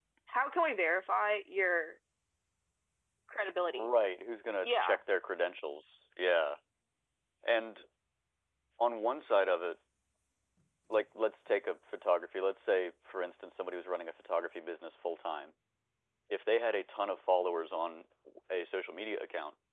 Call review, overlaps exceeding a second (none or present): none